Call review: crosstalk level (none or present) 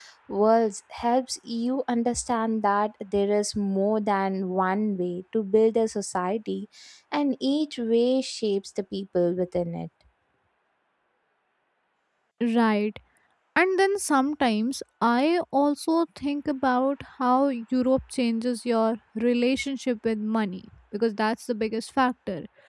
none